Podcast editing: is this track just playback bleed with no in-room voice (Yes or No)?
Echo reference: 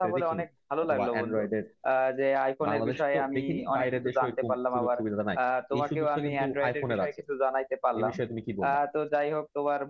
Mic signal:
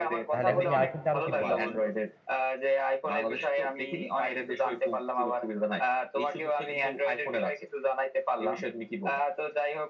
No